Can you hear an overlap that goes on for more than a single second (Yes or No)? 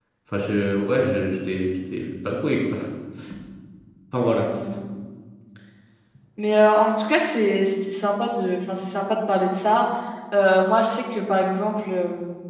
No